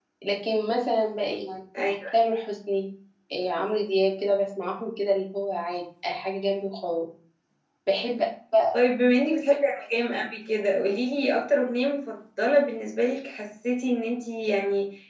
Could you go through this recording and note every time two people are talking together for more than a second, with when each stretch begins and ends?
none

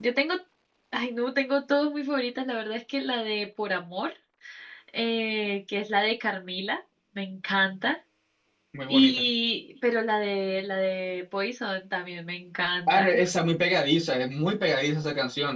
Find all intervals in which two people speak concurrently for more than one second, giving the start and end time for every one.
none

